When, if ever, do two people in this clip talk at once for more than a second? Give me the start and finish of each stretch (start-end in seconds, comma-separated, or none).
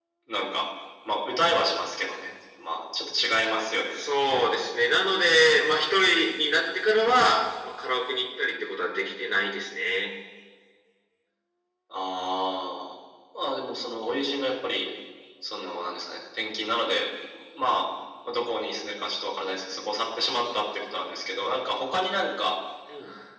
none